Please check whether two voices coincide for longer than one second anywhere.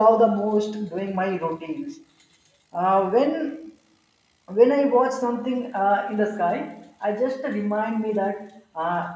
No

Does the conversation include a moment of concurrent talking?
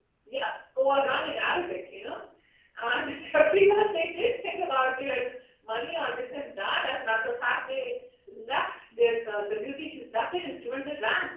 No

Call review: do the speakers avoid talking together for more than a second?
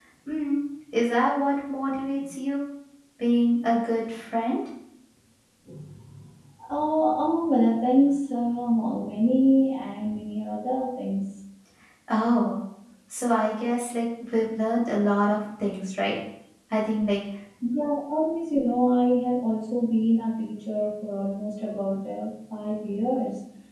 Yes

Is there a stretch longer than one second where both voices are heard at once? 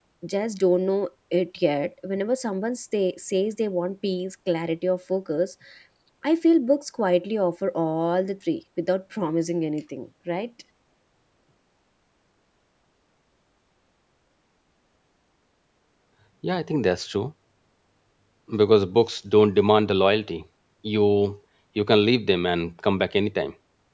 No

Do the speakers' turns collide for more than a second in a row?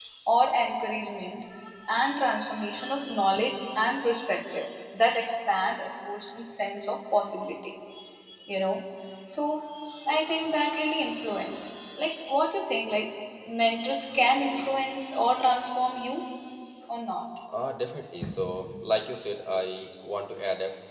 No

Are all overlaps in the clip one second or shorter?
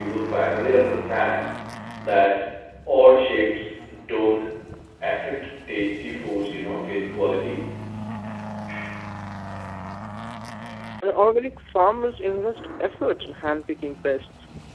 Yes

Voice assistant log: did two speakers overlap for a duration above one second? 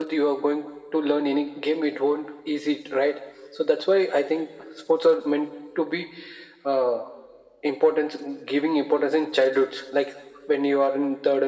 No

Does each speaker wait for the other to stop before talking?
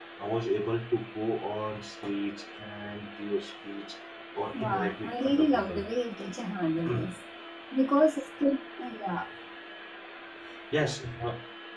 No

